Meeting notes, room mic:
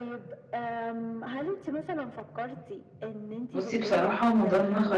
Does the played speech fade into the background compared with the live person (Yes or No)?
Yes